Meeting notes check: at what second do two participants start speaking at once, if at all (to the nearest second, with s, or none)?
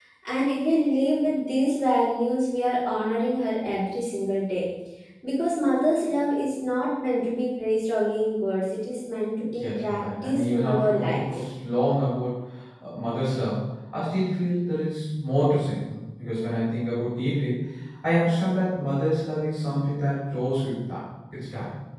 9 s